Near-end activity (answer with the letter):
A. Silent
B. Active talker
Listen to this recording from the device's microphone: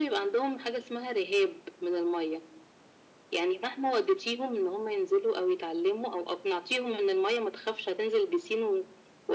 A